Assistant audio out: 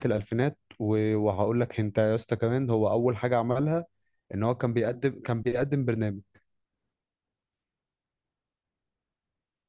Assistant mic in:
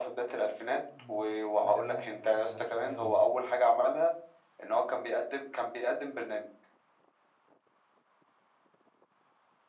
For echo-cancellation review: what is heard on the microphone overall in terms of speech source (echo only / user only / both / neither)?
both